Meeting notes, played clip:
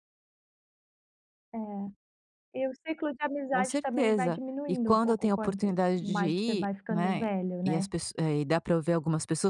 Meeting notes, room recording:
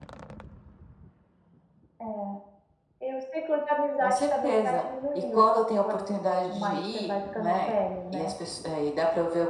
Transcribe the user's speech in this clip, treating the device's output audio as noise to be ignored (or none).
none